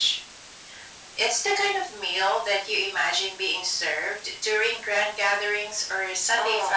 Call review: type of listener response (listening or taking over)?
taking over